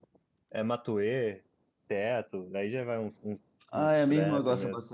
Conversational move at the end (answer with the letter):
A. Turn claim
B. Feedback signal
A